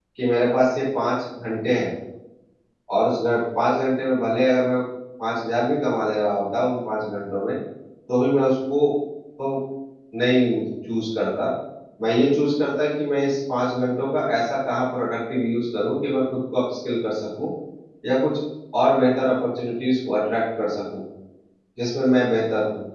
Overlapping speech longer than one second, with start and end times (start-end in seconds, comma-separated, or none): none